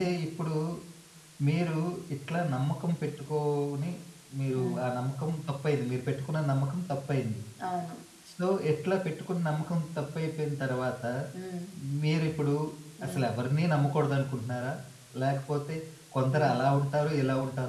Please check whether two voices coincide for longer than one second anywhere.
No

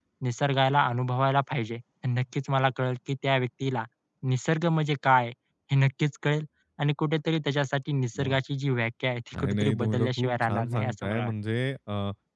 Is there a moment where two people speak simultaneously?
Yes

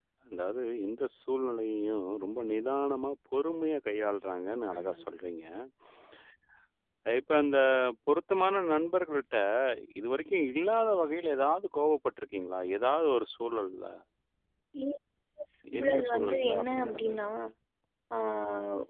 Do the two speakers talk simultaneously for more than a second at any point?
Yes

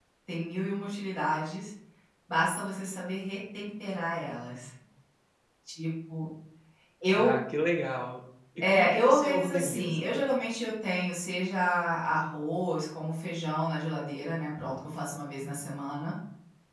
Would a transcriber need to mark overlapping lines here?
Yes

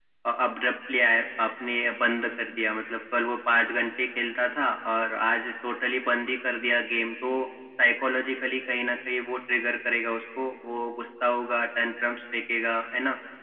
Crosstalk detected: No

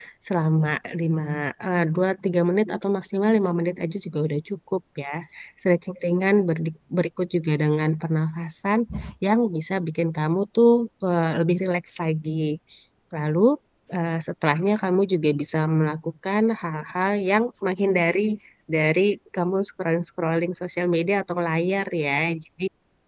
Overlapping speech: No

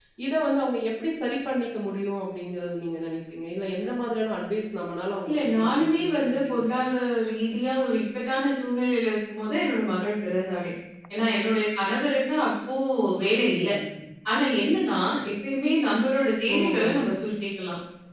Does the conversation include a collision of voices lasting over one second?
Yes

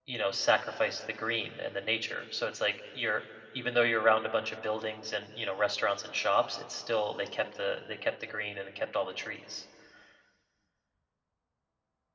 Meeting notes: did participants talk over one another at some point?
No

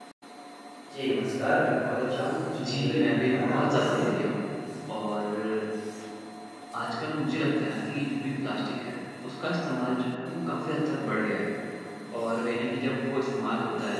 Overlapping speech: Yes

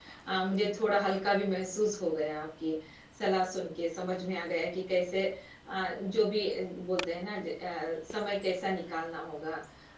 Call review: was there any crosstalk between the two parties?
No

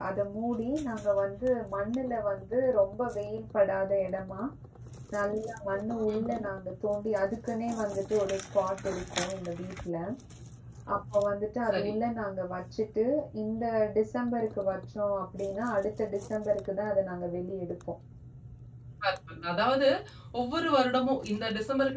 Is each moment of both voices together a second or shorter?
Yes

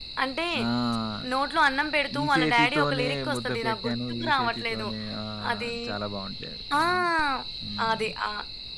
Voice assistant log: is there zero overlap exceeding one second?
No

